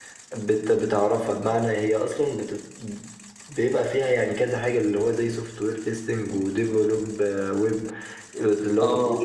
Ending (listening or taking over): listening